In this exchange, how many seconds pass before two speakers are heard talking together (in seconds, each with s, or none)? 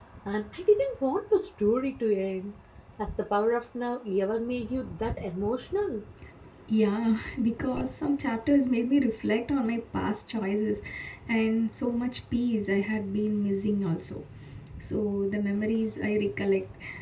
none